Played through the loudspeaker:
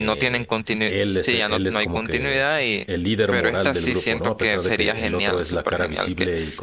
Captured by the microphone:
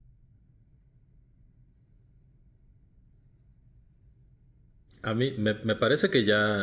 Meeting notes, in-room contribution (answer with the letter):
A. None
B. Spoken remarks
B